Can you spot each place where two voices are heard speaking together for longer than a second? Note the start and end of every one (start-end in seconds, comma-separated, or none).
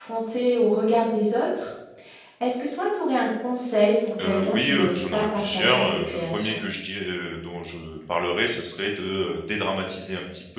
4.2-6.6